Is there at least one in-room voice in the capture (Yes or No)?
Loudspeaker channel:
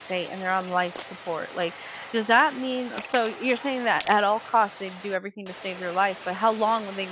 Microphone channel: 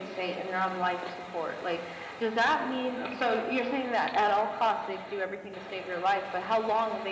No